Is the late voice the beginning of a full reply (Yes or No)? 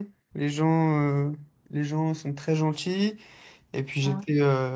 No